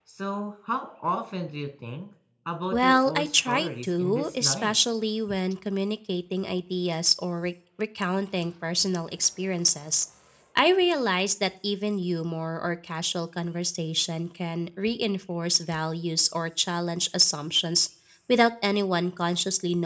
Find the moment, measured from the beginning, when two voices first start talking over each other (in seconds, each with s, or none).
2.7 s